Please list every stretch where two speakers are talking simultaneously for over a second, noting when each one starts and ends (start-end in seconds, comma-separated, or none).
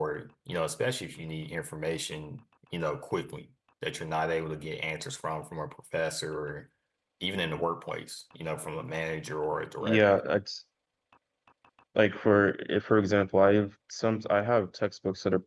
none